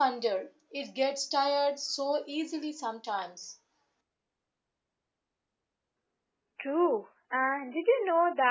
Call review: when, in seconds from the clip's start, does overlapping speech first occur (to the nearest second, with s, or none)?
none